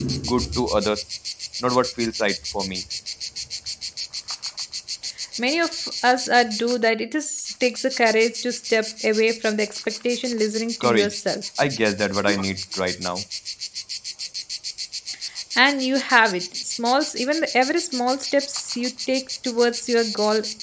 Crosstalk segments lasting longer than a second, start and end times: none

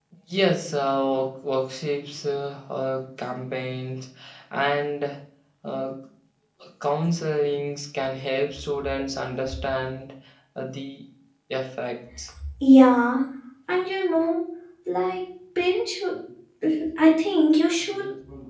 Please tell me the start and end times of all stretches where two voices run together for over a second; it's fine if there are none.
none

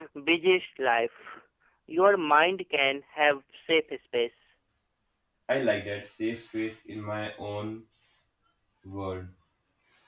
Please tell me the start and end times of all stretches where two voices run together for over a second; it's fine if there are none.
none

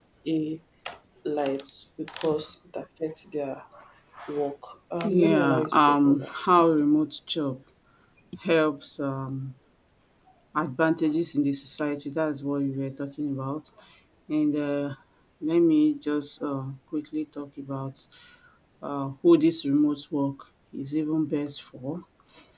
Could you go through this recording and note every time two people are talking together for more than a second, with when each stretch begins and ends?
5.0-6.3

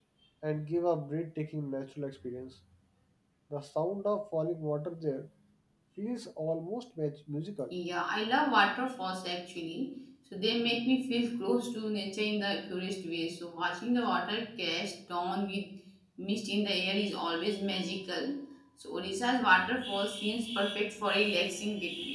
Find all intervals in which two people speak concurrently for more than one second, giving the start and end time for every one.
none

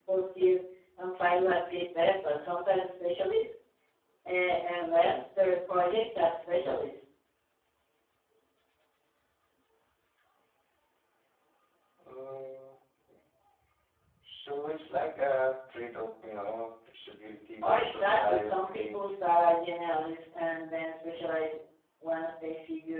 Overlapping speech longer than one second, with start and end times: 17.6-19.1

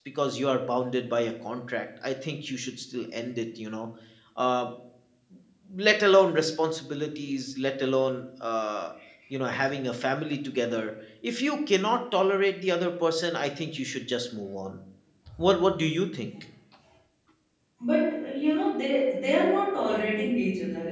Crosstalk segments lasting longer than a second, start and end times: none

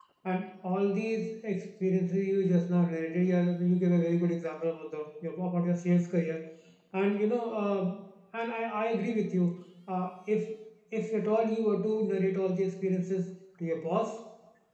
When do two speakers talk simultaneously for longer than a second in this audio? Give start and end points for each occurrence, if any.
none

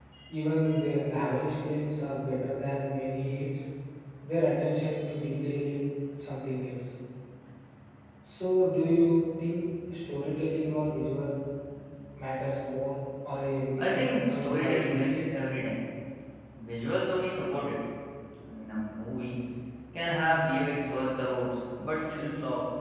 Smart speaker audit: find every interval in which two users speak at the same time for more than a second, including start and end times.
13.8-15.2

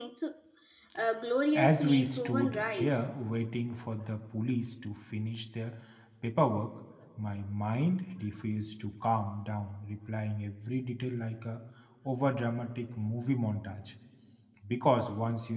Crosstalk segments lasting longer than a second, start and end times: 1.5-3.0

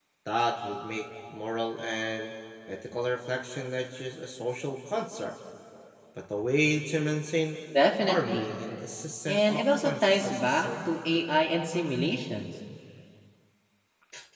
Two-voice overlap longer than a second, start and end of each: 9.3-10.7

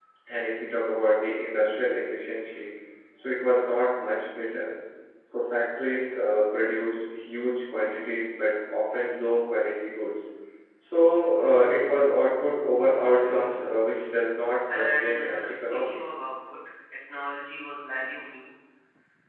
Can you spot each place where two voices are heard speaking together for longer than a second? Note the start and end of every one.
14.7-16.0

